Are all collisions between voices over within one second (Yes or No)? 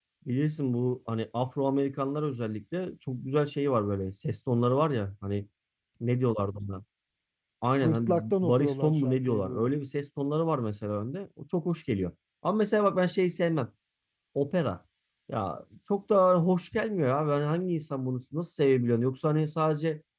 No